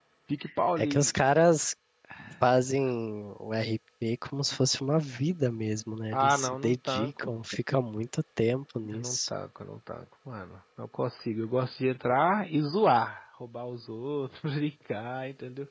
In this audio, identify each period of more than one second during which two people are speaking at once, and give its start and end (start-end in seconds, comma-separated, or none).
6.1-7.4